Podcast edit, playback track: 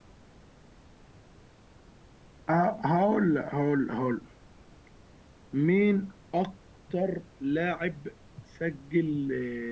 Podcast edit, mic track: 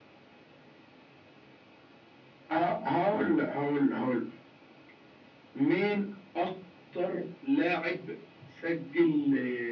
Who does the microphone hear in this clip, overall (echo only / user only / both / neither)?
echo only